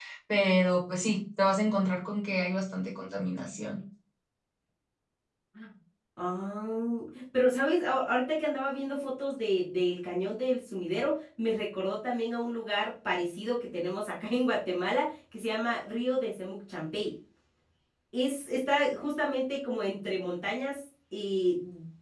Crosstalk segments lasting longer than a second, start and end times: none

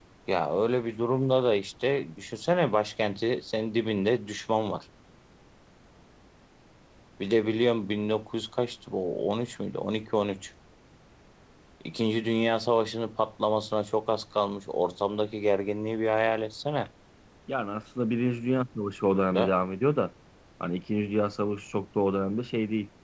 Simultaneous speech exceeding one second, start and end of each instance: none

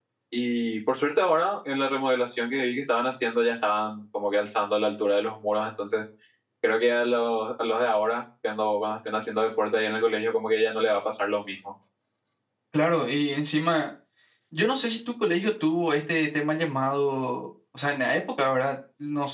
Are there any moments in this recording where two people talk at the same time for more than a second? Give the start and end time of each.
none

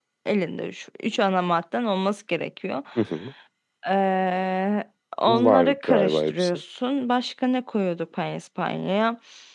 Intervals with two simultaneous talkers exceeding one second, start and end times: 5.3-6.5

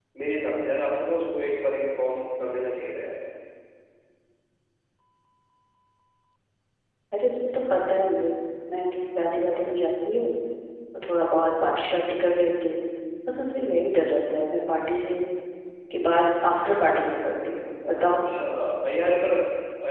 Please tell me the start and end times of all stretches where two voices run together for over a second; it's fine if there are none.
none

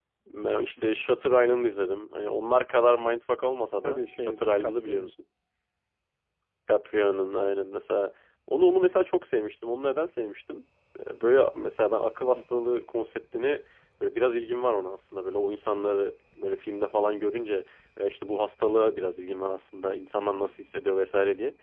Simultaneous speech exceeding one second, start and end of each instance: 3.8-5.1

